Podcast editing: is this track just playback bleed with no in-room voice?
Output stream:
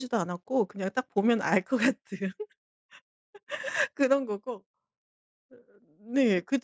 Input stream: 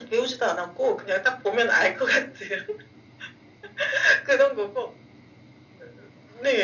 Yes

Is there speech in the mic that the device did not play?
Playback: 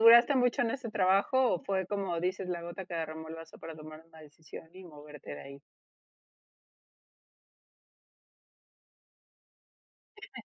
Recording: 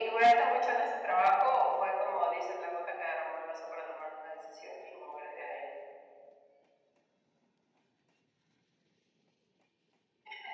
No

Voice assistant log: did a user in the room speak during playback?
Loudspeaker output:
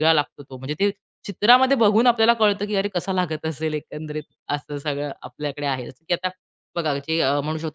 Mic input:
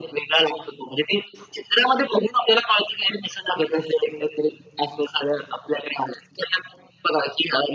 No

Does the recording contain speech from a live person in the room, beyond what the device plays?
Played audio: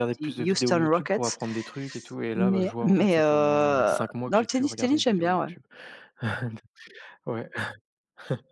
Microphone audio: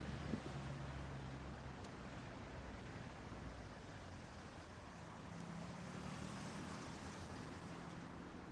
No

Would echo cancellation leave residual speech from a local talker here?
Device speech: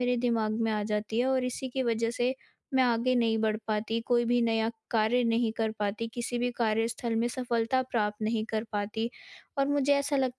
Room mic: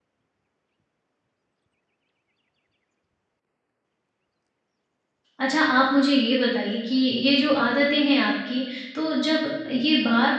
Yes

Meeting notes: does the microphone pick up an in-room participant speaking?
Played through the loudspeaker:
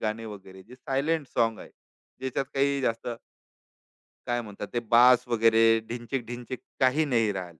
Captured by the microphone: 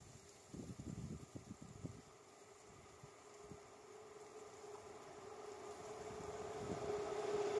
No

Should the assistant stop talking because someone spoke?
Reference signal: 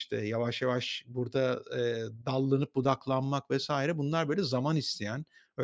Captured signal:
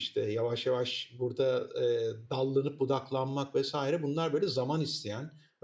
No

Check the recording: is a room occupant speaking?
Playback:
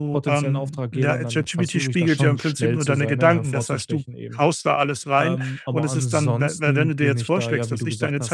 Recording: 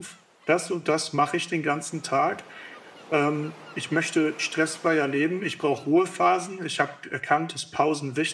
Yes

